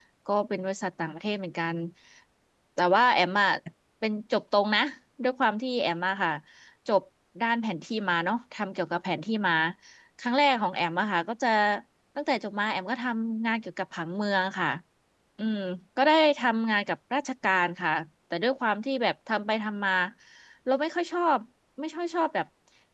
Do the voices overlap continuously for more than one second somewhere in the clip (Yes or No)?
No